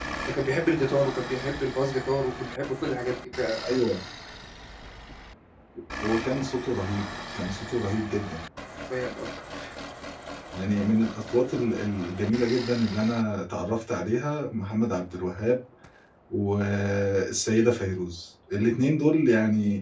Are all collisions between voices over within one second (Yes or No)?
Yes